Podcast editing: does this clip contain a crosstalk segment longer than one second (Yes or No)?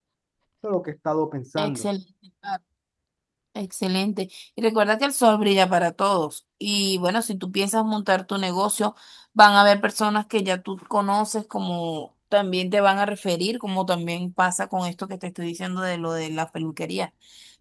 No